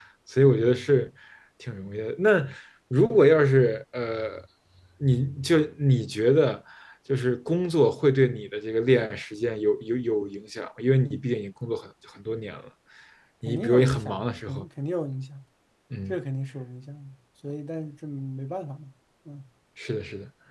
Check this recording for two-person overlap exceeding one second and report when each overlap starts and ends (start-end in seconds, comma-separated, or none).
13.4-14.7